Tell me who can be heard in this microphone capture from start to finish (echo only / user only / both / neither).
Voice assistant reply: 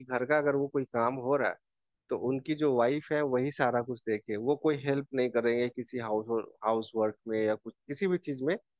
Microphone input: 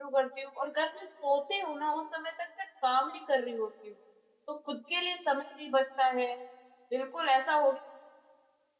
user only